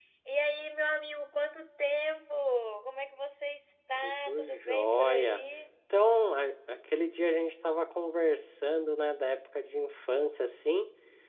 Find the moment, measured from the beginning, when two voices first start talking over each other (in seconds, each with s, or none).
4.0 s